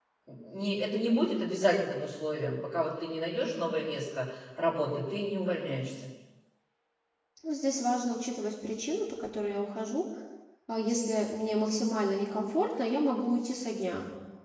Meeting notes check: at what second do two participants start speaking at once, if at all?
none

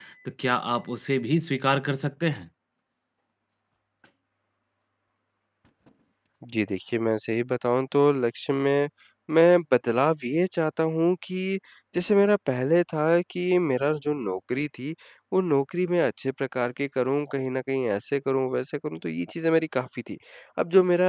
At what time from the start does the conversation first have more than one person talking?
none

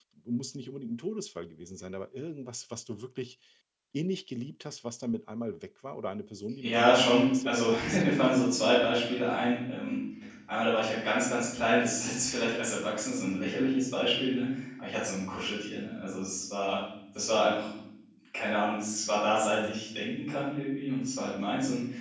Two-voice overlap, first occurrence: 6.6 s

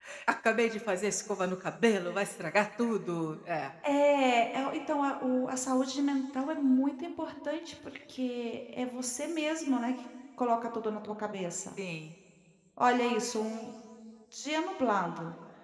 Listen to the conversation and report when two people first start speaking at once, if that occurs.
none

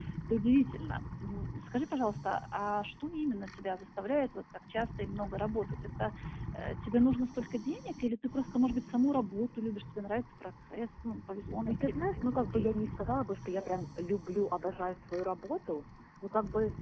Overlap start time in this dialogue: 11.7 s

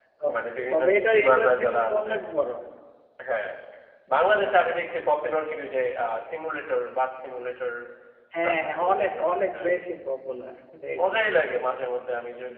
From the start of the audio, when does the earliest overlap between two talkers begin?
0.7 s

